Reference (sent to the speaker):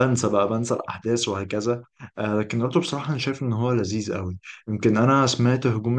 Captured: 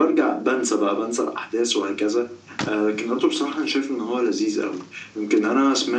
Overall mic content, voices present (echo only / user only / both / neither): echo only